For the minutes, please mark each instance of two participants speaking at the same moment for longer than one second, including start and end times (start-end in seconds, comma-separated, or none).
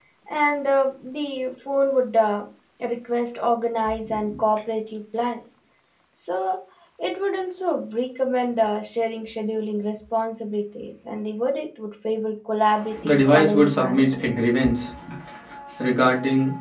13.0-14.3